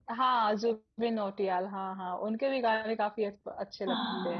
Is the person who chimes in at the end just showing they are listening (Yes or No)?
No